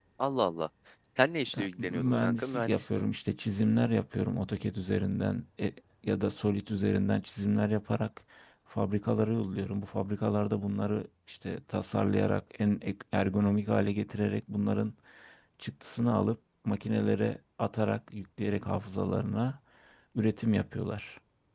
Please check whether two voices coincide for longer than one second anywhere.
Yes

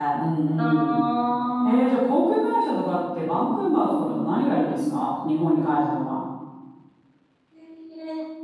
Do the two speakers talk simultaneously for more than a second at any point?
No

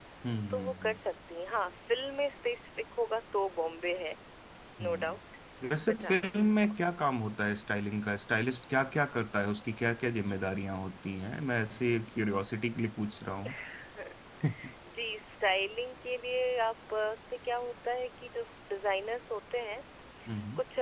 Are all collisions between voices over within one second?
Yes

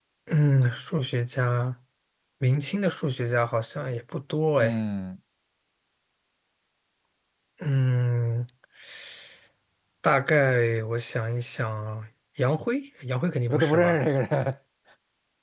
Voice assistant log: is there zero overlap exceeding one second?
Yes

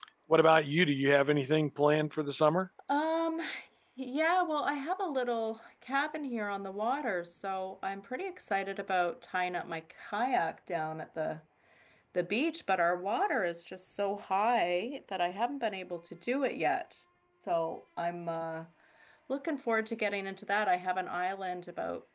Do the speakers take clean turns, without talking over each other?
Yes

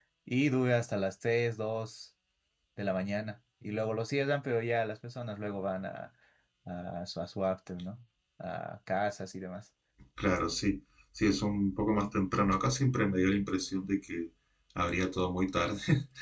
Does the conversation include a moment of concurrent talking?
No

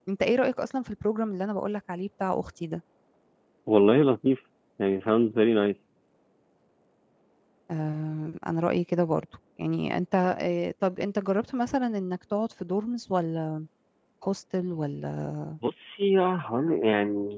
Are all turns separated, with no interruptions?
Yes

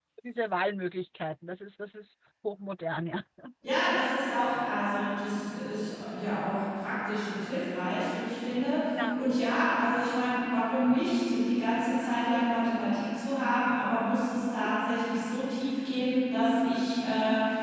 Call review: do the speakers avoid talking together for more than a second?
Yes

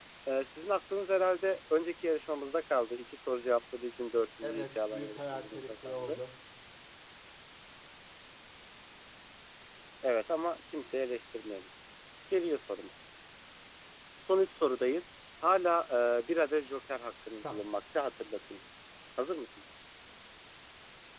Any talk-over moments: Yes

